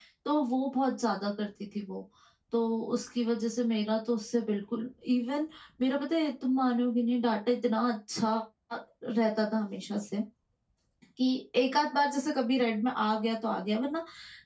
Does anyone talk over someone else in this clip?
No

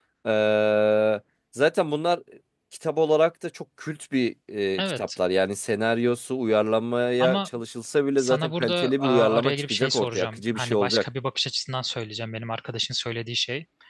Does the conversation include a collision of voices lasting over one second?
Yes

